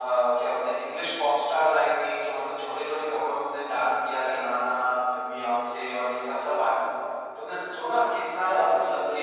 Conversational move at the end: listening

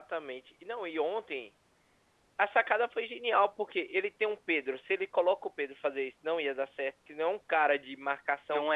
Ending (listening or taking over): taking over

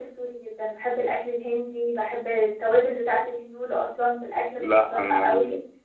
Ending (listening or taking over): taking over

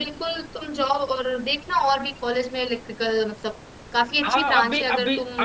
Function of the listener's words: taking over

